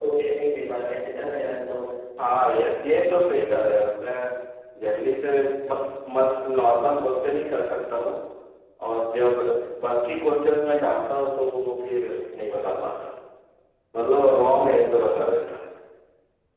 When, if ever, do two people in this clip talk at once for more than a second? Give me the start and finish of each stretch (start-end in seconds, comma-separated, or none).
none